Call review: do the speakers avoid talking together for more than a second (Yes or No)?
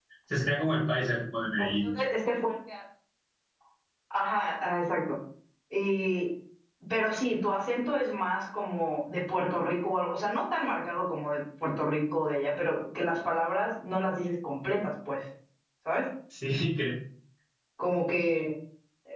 Yes